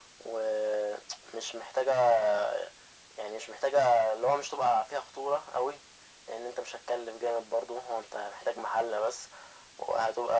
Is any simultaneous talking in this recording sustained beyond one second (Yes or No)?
No